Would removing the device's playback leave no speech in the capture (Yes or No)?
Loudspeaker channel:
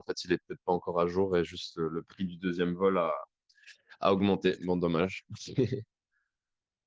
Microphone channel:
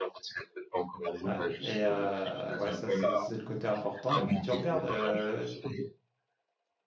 No